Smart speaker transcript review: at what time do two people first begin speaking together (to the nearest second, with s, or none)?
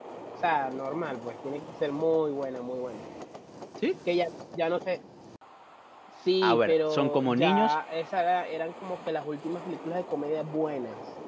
6 s